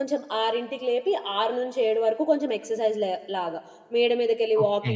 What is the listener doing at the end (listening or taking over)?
listening